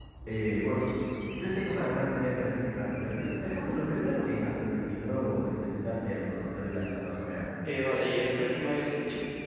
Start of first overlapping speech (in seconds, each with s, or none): none